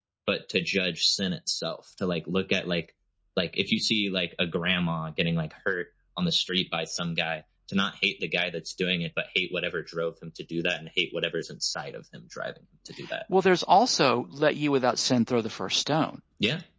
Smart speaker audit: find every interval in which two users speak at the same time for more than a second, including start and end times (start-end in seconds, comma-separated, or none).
none